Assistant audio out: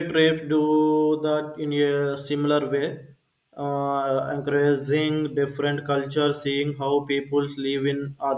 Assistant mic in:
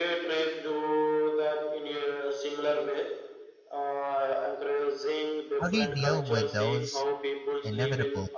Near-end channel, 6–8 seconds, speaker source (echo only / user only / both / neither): both